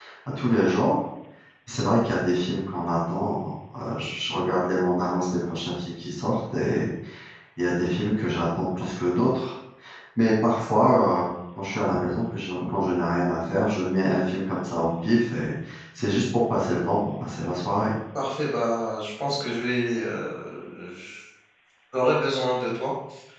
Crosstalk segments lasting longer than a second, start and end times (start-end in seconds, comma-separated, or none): none